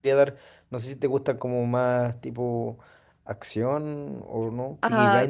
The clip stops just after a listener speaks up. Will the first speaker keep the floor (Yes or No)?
No